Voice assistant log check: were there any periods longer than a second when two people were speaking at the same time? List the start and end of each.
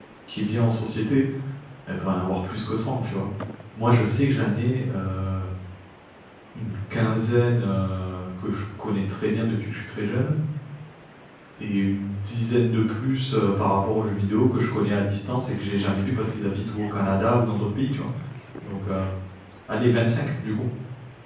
none

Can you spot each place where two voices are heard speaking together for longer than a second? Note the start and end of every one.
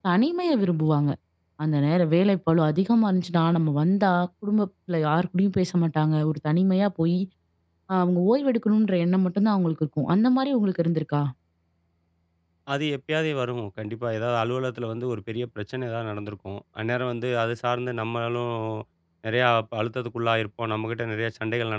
none

